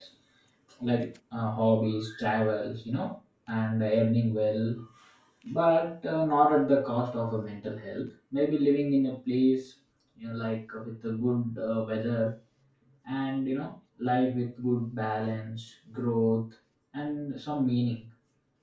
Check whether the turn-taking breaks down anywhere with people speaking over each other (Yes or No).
No